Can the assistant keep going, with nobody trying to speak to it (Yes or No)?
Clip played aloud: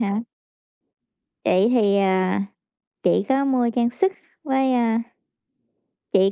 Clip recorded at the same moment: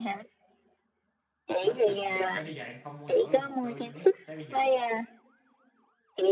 No